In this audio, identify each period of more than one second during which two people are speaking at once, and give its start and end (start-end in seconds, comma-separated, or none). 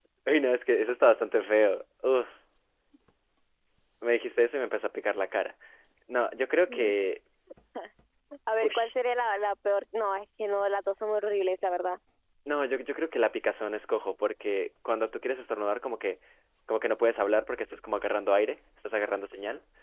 none